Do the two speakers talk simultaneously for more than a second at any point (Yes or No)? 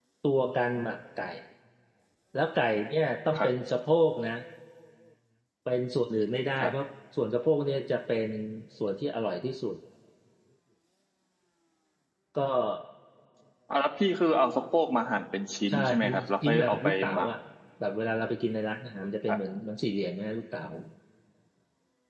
Yes